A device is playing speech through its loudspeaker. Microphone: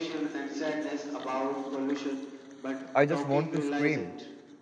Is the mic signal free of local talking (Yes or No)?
No